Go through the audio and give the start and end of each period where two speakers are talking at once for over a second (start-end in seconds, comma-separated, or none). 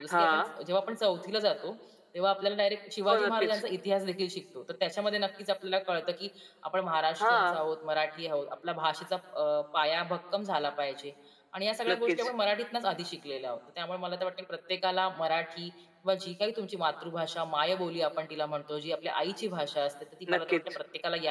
none